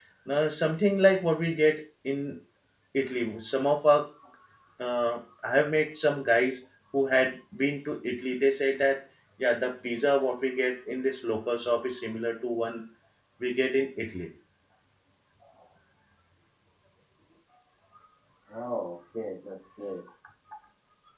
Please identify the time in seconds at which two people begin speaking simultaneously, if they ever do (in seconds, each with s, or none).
none